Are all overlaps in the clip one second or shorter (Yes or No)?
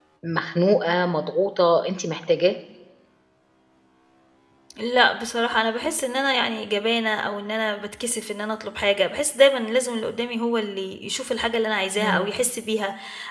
Yes